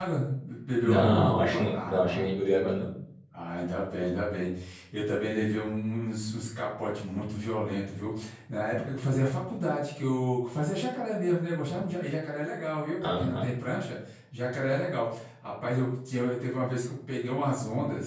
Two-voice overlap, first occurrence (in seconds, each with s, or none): 0.8 s